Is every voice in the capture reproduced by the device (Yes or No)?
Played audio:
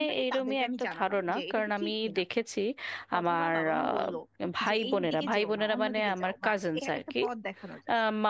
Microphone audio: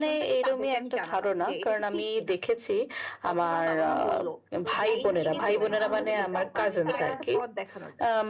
No